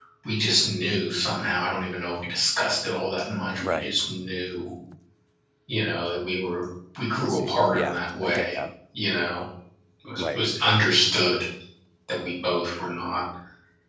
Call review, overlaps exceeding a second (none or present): present